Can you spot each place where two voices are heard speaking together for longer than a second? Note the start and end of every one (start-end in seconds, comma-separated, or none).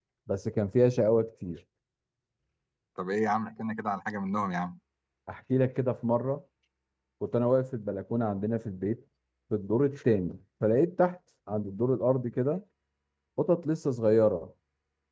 none